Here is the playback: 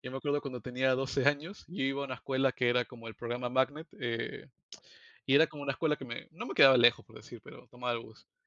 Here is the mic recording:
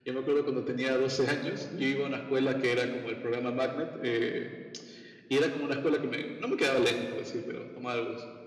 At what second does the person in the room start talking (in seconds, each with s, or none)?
none